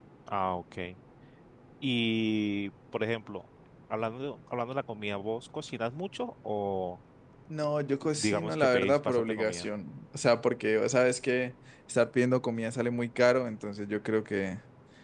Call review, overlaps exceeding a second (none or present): present